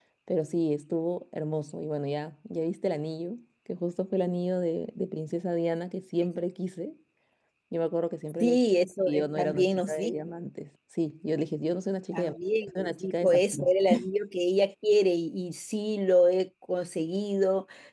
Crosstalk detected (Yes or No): Yes